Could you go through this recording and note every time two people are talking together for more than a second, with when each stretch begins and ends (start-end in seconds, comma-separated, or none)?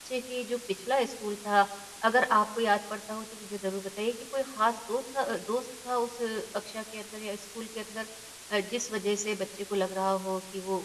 none